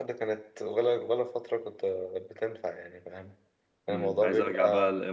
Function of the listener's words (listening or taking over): taking over